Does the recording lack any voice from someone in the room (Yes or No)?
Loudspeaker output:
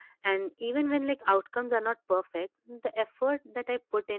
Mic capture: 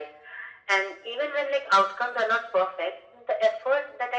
Yes